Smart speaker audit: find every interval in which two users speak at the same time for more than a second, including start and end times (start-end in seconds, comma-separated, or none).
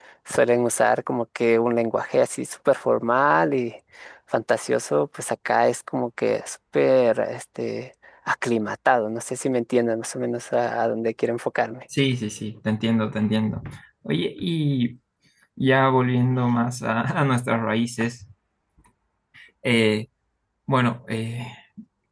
none